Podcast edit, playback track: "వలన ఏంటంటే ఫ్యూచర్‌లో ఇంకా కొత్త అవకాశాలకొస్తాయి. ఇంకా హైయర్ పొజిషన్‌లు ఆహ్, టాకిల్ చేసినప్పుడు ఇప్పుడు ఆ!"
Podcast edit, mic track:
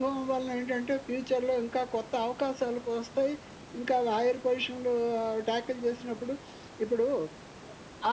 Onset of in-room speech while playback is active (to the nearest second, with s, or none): none